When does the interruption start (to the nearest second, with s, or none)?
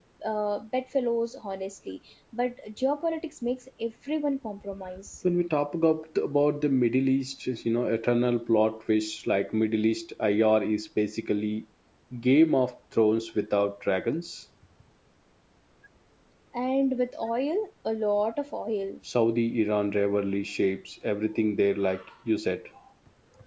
none